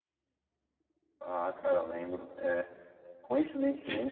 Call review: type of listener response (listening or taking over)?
listening